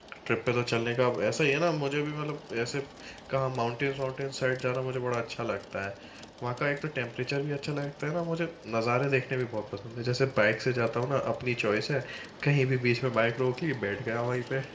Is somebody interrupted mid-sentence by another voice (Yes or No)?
No